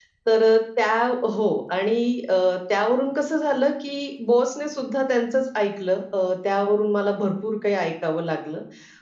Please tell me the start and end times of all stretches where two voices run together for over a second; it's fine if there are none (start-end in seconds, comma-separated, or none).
none